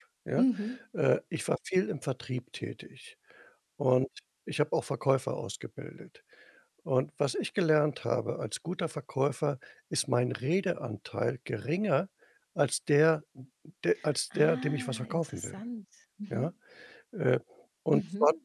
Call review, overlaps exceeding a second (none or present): present